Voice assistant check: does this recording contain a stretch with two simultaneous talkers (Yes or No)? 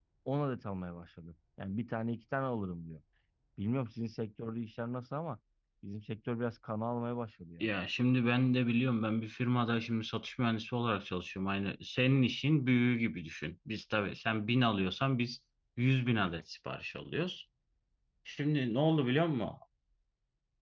No